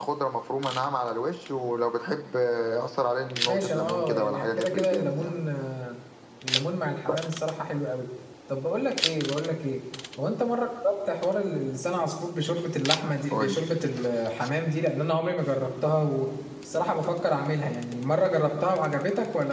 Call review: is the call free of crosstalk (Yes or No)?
No